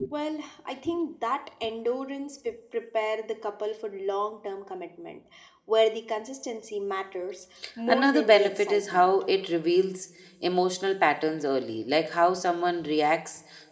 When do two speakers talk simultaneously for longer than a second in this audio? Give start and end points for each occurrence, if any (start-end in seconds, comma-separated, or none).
7.9-9.1